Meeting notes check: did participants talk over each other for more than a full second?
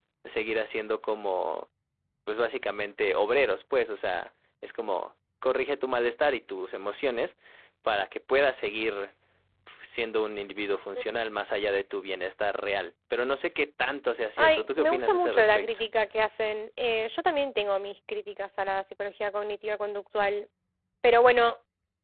Yes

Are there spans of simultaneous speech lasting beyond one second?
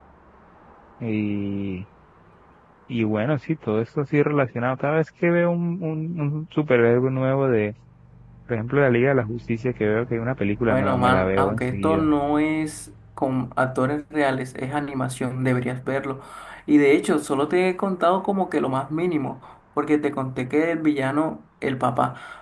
Yes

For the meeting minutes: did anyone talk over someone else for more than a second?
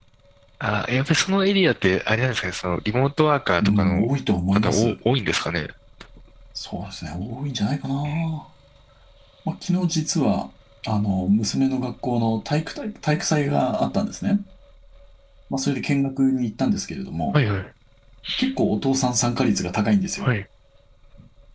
No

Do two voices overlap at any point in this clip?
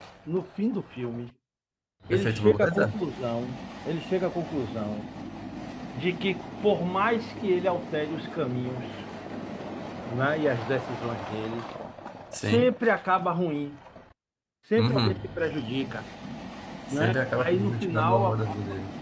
Yes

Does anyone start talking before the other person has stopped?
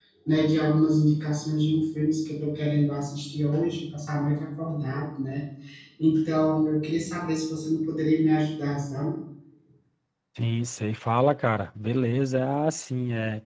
No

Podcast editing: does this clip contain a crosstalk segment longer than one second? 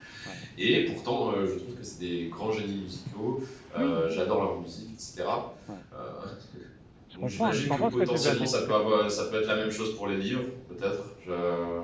Yes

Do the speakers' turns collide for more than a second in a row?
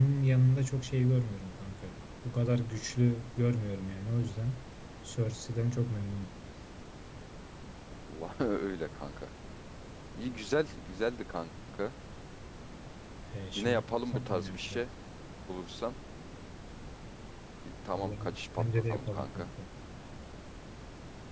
Yes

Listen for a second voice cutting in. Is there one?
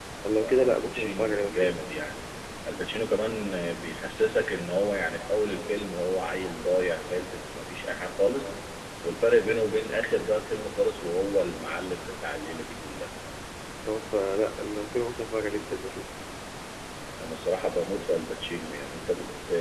Yes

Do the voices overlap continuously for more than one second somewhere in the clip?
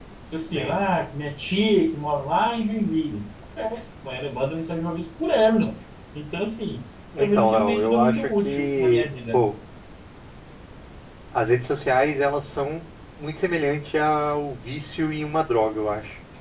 Yes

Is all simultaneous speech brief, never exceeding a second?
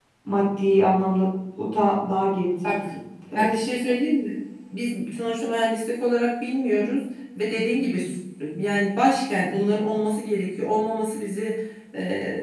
Yes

